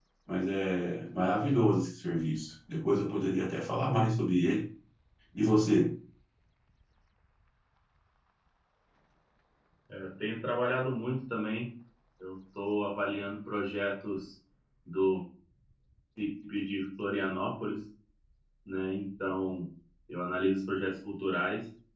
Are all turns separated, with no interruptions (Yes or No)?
Yes